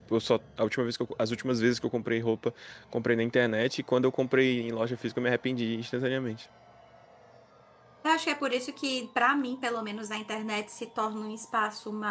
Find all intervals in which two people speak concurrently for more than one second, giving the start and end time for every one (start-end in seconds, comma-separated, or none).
none